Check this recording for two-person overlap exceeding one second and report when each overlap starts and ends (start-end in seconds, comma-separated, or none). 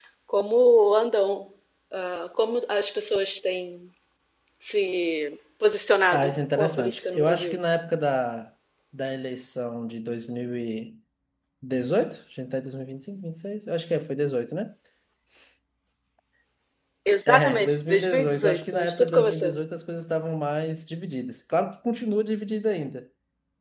6.1-7.6, 17.3-19.6